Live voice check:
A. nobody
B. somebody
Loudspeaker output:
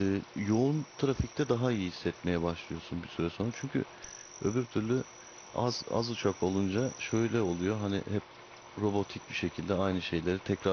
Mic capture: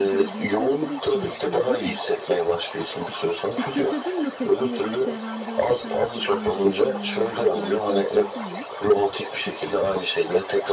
B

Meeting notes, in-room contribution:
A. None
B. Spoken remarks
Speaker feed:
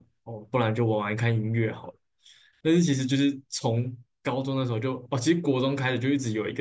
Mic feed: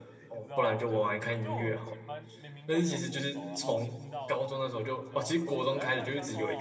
B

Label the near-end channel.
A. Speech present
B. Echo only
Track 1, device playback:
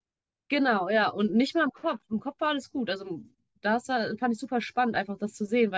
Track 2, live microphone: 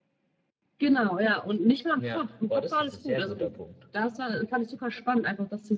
A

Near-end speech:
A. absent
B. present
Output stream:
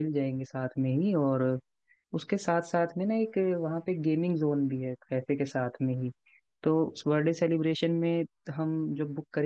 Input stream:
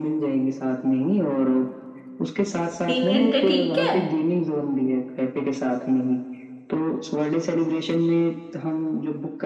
B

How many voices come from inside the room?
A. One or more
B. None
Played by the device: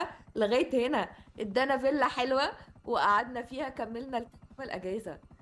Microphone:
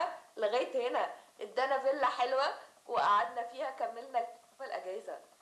B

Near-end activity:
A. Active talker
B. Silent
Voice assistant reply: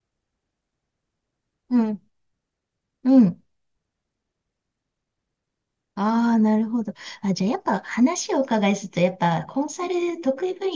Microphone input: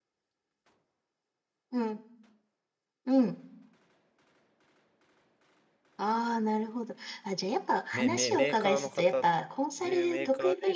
A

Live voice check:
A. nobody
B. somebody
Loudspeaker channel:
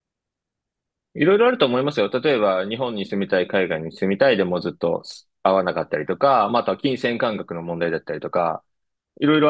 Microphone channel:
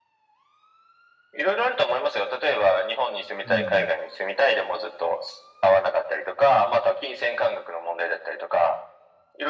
B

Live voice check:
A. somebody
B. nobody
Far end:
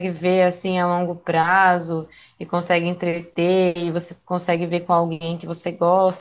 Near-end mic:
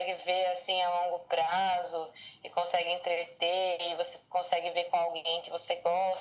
B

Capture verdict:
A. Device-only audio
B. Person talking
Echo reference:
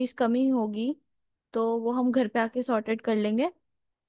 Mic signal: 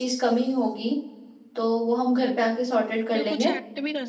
B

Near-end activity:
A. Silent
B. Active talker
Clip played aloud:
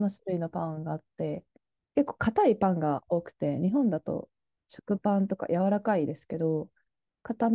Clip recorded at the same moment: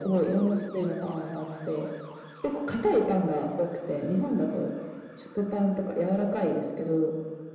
A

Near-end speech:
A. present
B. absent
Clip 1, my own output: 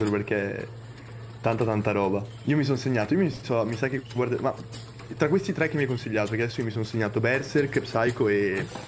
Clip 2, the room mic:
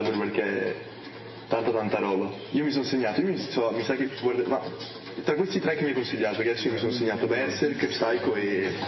A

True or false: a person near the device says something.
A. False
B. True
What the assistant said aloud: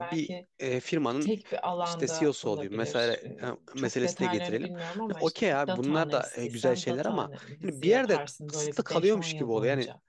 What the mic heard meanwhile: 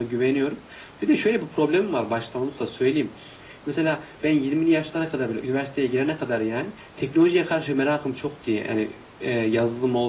B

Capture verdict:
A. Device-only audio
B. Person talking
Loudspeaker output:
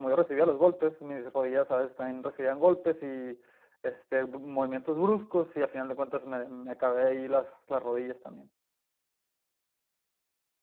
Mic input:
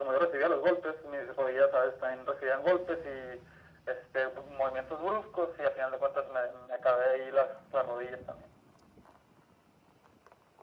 A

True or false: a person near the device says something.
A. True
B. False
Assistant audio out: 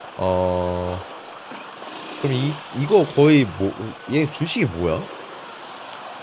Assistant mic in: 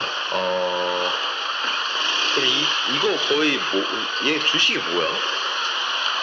B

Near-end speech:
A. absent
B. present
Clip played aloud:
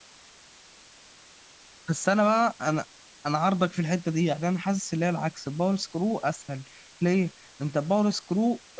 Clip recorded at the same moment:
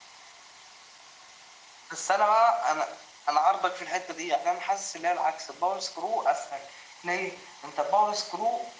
A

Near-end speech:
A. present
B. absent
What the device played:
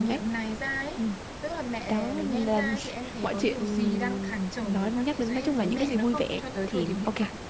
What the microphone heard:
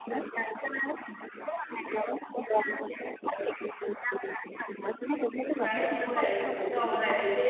A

